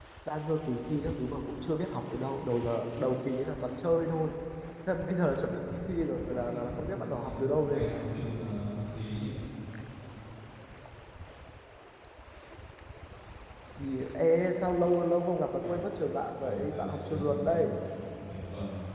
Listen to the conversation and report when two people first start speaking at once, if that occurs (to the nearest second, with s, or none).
6 s